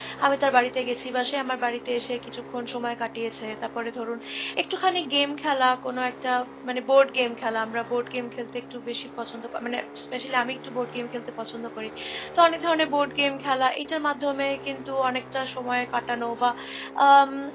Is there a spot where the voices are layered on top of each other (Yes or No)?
No